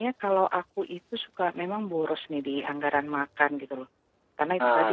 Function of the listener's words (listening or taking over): listening